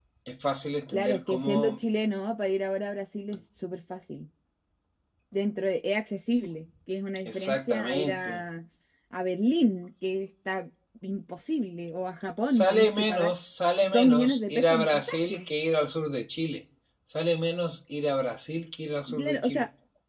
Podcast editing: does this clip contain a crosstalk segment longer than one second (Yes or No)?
Yes